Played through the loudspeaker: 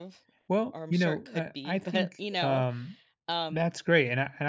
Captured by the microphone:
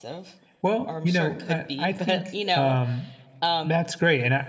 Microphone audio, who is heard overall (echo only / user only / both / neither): echo only